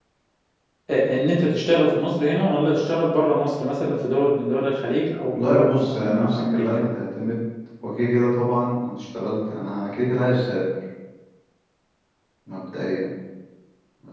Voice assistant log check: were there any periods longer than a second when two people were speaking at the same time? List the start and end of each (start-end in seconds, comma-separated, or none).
5.4-6.8